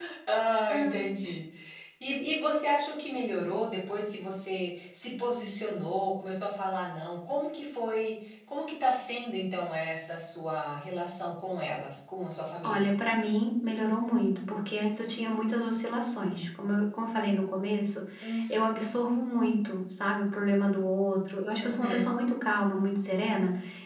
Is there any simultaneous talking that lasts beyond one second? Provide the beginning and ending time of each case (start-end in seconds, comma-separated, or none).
none